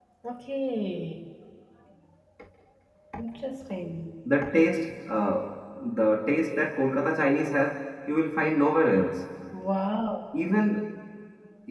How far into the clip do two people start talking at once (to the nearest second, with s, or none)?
none